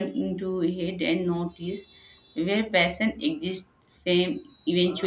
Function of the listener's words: taking over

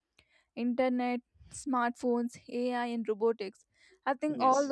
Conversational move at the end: listening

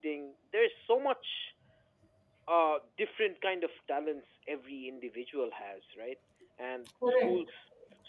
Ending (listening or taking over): listening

